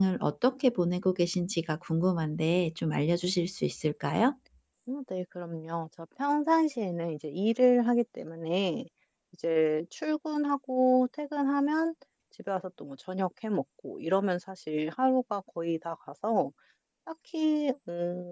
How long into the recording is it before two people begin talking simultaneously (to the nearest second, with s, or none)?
none